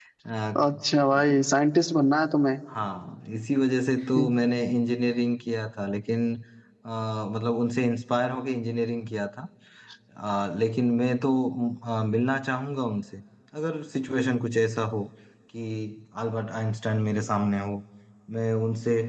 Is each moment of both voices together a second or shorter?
Yes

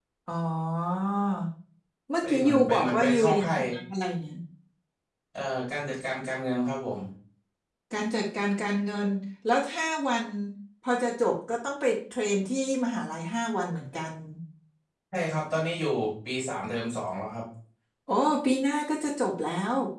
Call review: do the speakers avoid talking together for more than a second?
No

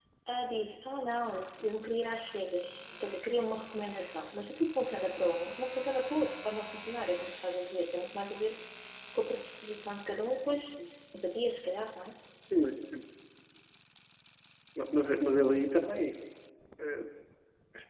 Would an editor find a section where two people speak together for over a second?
No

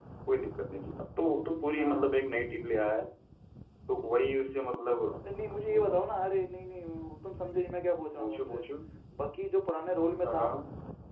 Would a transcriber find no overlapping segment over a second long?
Yes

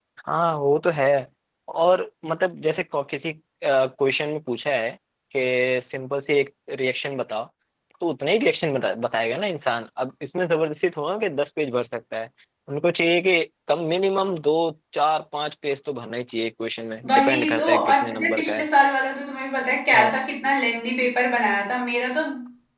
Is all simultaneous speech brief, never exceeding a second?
No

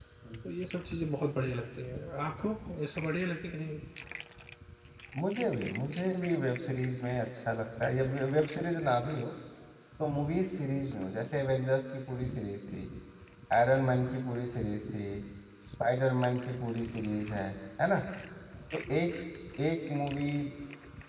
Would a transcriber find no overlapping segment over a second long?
Yes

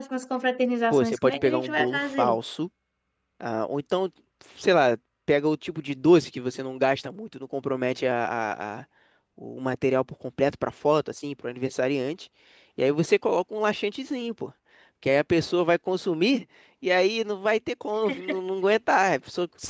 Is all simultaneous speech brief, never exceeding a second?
No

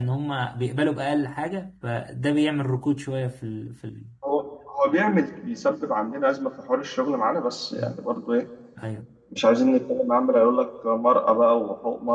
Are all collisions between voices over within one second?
Yes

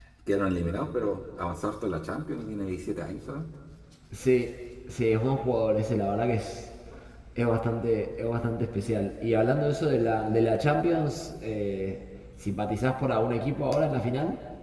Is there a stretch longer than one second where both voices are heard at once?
No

